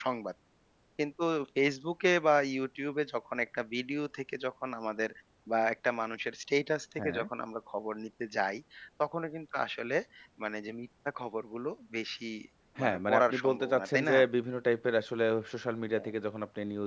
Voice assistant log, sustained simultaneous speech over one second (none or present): present